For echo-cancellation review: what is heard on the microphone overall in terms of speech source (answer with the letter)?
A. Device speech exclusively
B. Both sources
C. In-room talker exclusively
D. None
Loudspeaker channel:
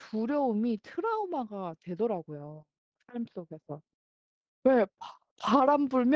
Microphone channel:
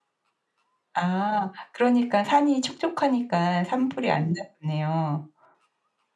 C